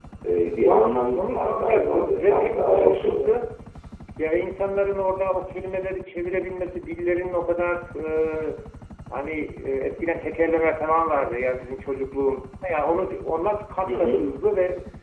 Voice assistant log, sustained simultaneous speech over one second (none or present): present